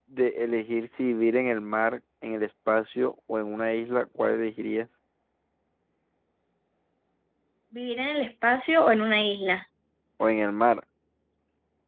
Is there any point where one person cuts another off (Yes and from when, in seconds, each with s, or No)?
No